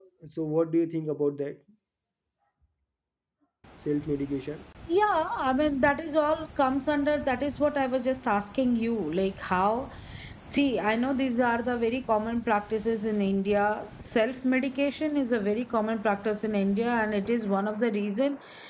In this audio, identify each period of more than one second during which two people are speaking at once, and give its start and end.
none

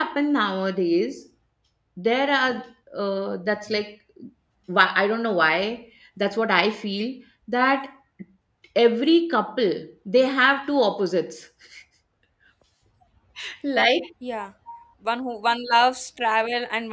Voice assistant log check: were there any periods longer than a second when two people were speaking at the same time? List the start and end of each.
none

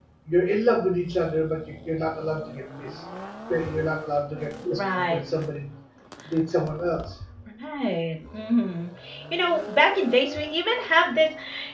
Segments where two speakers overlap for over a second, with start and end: none

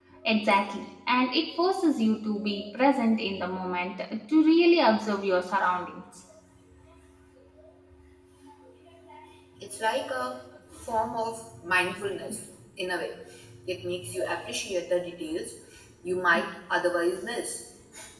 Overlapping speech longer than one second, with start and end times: none

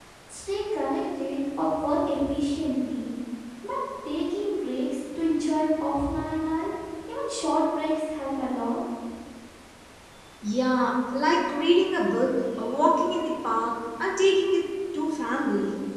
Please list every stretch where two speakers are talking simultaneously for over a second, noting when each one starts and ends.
none

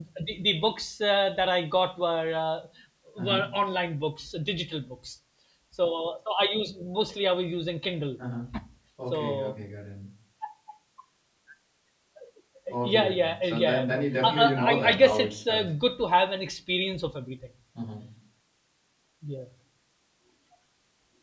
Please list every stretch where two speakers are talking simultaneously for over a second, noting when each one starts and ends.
12.8-15.7

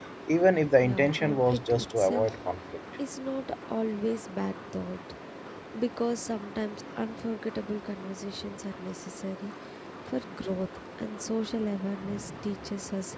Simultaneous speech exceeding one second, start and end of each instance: 0.8-2.3

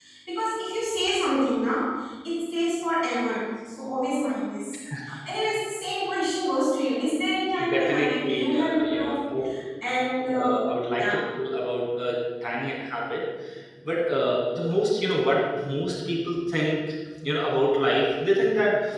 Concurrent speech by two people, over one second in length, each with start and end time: 7.7-9.2

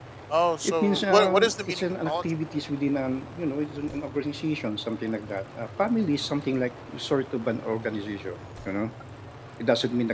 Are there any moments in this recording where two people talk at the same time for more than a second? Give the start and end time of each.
0.6-2.2

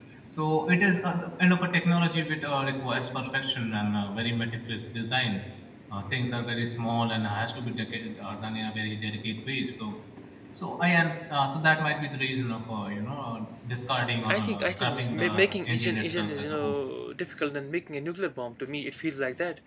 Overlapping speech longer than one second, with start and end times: 14.3-16.8

